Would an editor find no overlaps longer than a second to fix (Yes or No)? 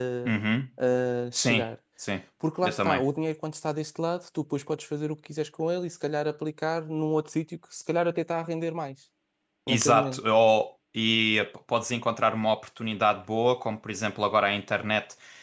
Yes